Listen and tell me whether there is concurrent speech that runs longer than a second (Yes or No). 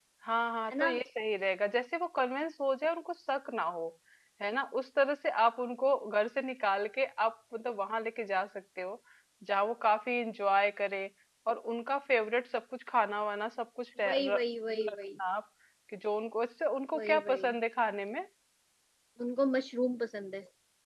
No